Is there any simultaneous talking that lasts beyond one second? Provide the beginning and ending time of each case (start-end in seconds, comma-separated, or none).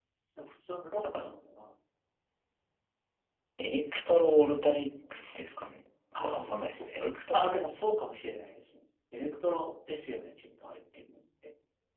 6.2-7.6